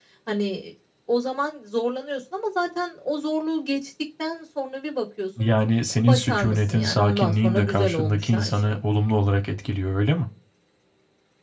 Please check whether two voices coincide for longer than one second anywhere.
Yes, from 6.0 s

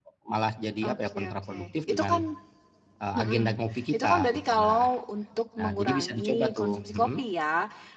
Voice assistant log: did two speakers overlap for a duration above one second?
Yes, from 0.8 s

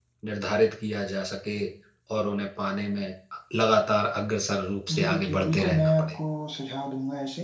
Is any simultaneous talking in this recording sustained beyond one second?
Yes, from 4.9 s

